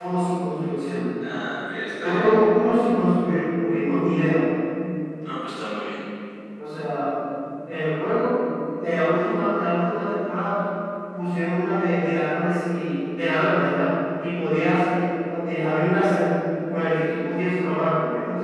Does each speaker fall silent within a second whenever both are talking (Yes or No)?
Yes